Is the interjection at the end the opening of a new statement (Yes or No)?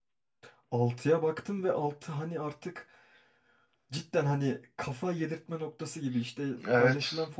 No